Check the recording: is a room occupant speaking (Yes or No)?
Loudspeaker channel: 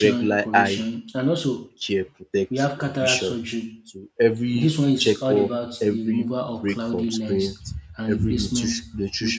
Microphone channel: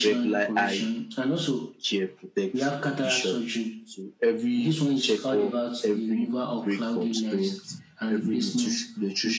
No